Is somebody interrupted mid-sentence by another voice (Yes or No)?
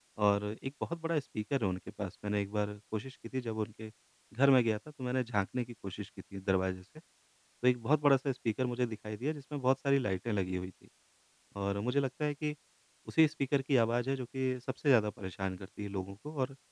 No